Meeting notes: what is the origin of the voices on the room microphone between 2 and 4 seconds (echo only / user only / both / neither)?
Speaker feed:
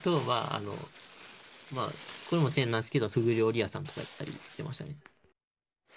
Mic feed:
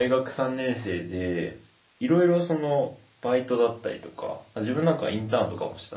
user only